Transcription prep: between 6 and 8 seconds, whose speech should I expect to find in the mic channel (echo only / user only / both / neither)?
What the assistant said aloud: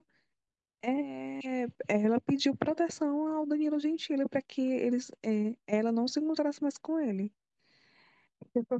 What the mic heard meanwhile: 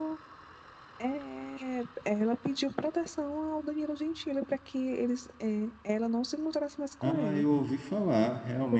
both